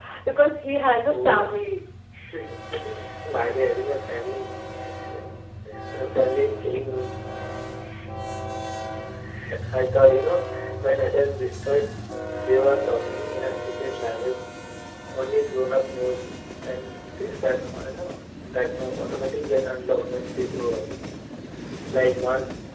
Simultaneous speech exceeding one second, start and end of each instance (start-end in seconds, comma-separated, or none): none